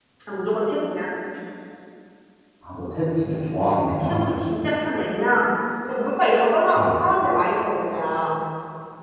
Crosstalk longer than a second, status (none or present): none